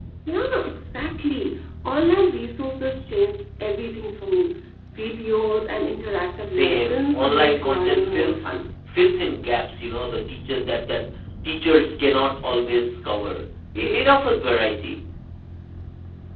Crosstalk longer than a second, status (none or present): present